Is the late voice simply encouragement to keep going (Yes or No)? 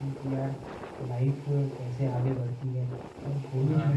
Yes